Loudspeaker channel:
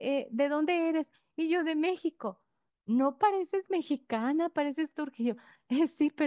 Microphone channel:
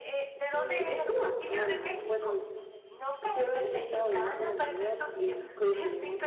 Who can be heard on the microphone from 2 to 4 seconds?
both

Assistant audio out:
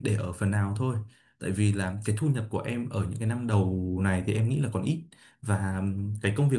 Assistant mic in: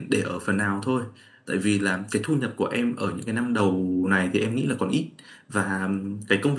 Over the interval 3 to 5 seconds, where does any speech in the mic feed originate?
echo only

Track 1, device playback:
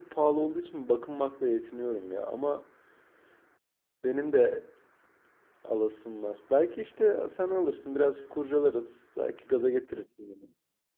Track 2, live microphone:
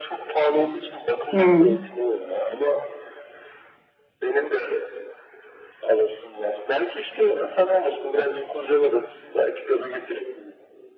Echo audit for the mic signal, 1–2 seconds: both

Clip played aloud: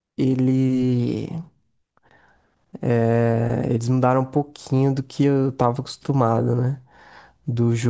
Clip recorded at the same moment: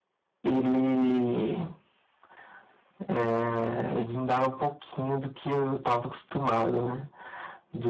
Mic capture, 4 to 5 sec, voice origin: echo only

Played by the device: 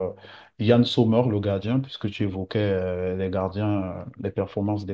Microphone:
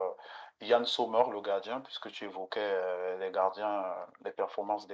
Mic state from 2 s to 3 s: echo only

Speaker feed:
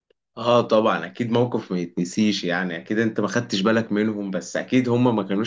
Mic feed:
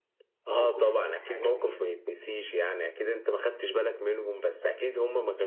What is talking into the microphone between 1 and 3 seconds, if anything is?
both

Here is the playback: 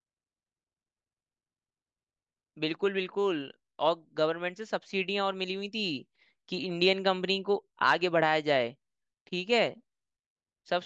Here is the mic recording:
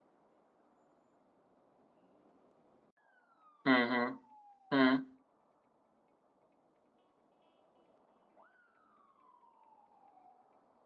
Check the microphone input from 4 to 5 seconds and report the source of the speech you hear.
user only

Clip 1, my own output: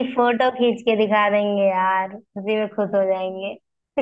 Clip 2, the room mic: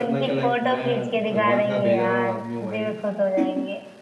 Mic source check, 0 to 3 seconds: both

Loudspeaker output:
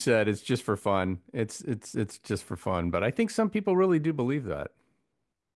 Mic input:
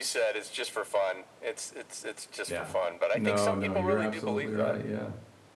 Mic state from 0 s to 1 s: echo only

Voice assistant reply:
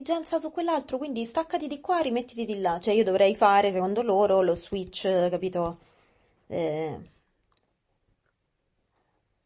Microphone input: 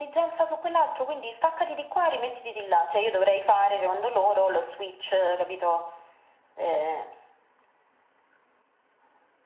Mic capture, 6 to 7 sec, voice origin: echo only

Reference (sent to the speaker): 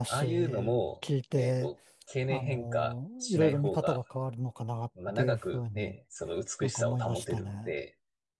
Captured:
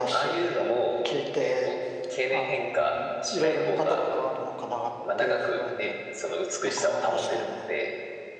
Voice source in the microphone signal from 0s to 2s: echo only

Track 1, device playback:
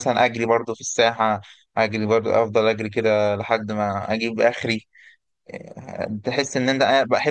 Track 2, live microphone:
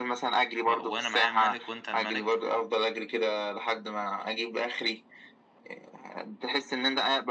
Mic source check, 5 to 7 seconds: echo only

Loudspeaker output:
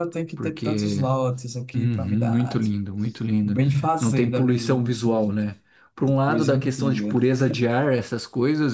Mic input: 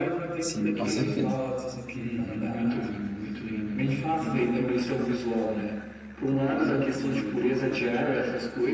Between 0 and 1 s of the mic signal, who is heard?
both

